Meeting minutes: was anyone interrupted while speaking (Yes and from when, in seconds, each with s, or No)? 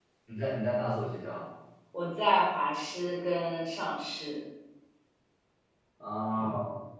No